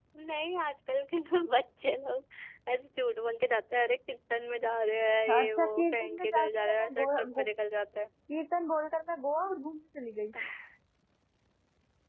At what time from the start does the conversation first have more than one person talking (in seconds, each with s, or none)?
5.3 s